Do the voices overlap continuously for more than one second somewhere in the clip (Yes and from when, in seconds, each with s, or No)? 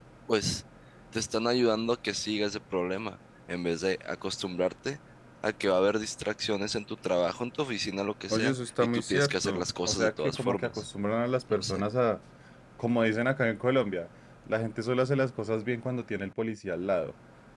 Yes, from 8.3 s